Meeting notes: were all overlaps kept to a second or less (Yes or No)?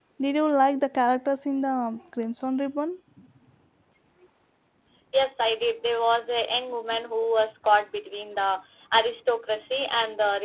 Yes